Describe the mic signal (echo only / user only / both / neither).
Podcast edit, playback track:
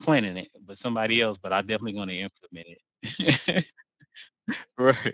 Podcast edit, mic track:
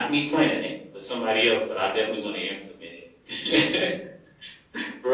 echo only